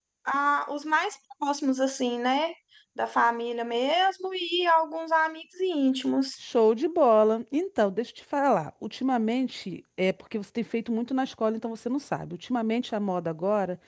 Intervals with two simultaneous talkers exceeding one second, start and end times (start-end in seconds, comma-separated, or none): none